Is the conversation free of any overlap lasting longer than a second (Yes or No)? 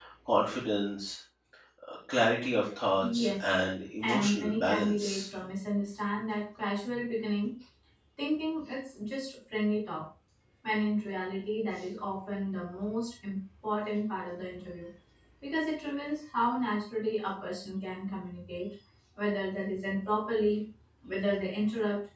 No